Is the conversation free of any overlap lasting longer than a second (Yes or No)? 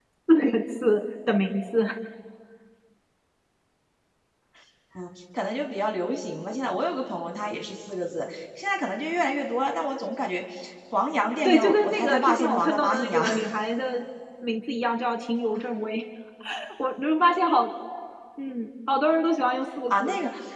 No